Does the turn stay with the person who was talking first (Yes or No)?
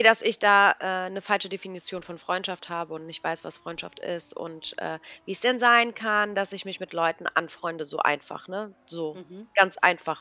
Yes